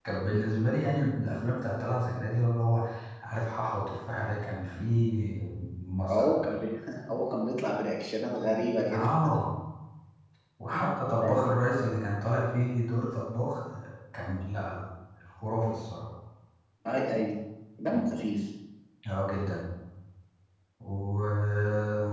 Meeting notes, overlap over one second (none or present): none